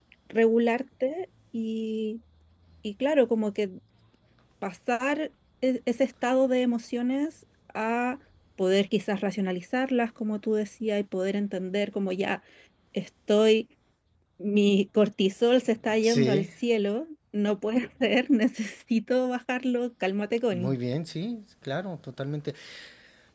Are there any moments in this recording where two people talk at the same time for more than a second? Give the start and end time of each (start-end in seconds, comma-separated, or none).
none